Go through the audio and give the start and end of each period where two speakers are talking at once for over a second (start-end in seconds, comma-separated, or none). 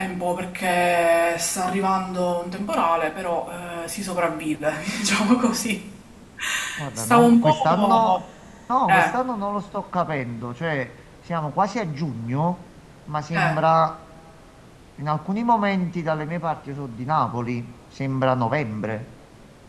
7.0-8.2